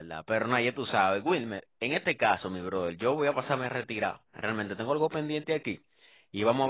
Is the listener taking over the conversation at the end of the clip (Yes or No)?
No